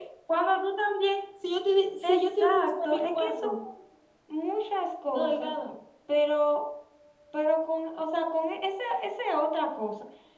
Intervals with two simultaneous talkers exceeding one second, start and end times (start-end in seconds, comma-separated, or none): 2.0-3.5